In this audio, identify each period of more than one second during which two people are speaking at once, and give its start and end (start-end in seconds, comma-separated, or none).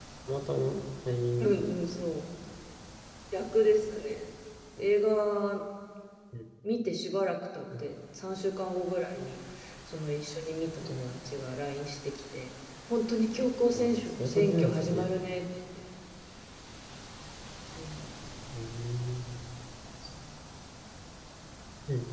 13.7-15.1